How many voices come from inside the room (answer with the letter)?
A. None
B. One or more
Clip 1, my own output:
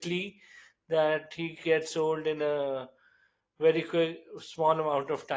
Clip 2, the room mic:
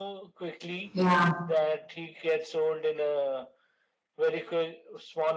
B